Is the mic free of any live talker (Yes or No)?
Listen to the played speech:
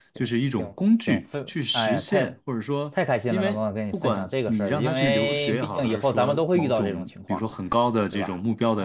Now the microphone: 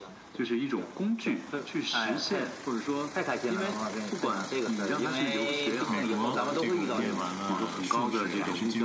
No